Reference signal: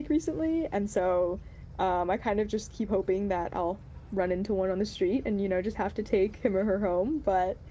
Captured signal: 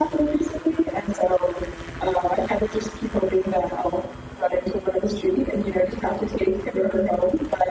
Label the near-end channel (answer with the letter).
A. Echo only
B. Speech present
A